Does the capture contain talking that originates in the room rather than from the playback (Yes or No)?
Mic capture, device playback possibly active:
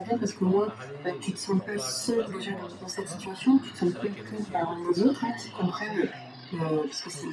Yes